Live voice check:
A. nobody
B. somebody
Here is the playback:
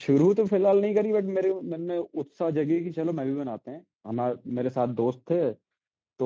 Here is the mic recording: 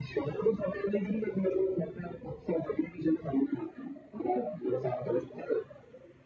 A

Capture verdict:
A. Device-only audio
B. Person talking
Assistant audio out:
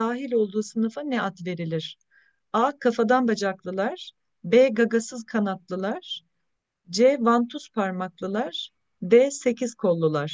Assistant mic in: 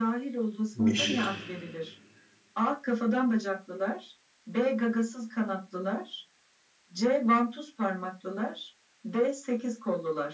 B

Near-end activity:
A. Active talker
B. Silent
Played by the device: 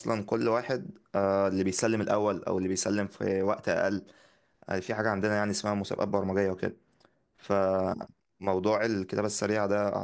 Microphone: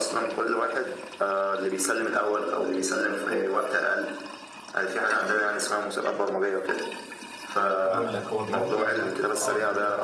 A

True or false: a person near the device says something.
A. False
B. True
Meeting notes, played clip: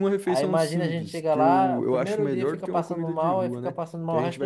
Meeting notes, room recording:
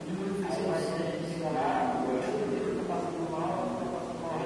A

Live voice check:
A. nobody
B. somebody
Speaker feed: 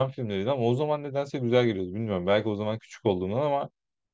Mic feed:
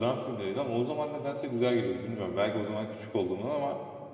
A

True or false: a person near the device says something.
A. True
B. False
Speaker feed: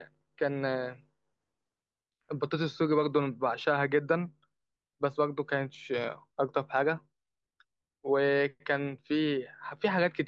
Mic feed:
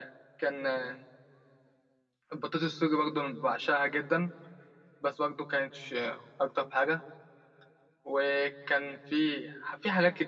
B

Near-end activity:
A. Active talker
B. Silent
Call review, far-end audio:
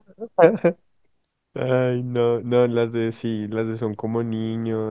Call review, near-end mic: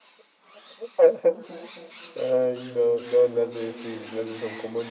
B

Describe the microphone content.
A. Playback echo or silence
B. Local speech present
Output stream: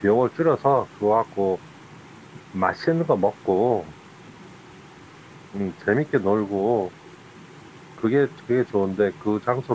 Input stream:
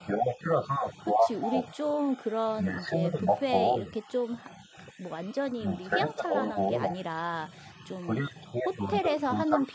B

